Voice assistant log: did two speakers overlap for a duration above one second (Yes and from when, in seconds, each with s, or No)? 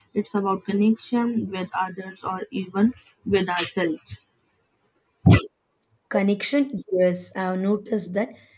No